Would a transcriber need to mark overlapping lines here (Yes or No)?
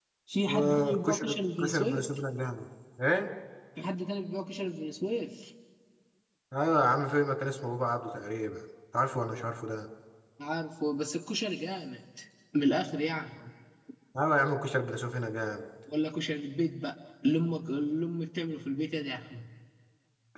Yes